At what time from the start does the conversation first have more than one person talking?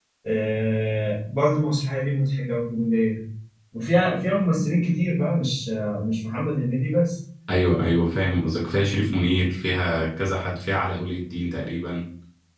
none

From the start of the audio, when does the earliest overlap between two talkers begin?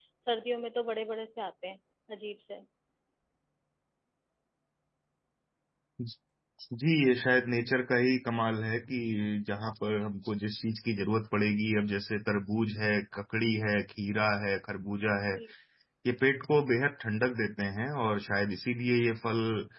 none

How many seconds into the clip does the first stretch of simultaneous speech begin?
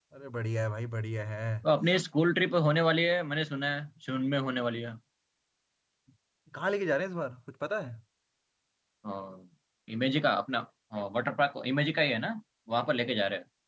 none

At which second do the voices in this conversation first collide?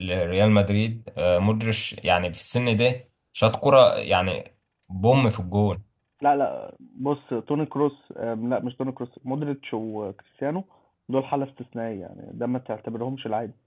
none

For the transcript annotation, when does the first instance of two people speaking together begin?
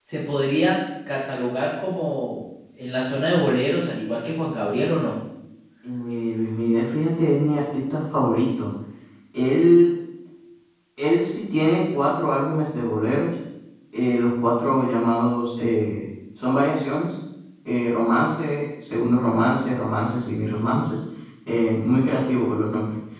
none

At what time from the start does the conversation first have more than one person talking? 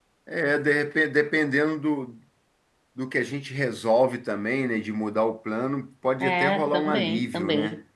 6.2 s

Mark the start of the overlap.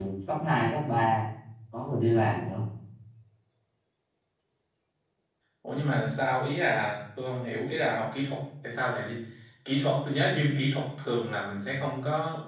none

